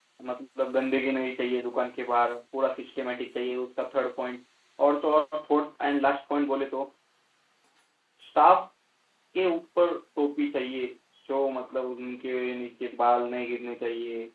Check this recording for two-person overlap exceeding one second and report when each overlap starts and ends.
none

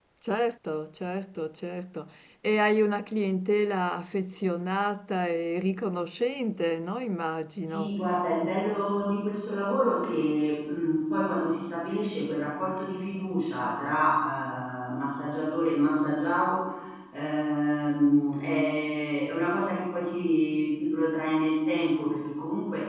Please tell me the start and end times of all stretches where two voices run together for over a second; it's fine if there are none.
none

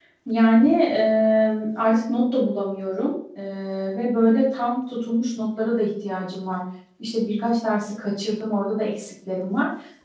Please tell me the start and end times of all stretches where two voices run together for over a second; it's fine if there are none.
none

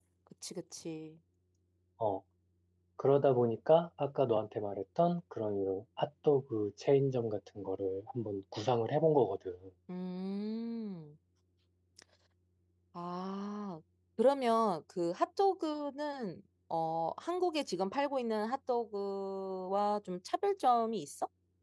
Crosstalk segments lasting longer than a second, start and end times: none

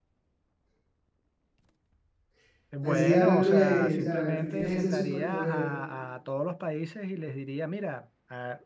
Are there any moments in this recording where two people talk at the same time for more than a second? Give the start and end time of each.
2.8-5.7

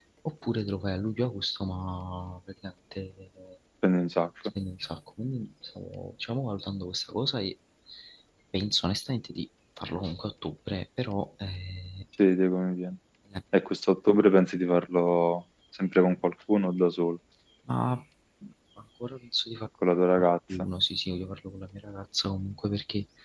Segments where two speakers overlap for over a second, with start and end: none

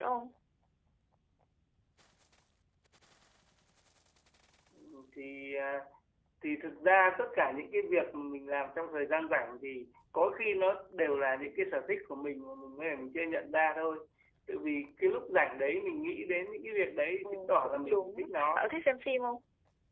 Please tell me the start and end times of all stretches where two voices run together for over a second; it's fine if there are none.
17.2-18.6

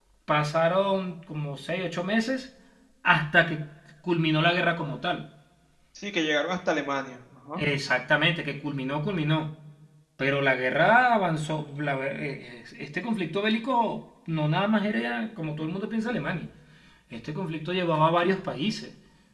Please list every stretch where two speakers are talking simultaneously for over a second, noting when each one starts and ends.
none

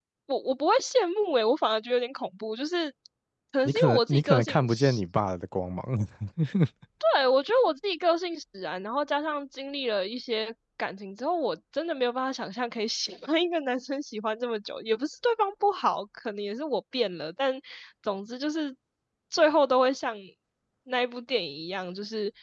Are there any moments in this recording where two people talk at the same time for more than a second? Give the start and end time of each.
3.6-5.0

